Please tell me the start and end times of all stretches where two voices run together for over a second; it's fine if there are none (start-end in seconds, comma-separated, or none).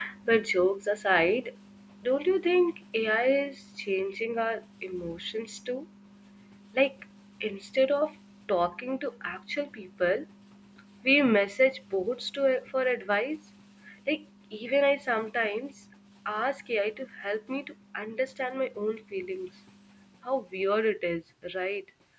none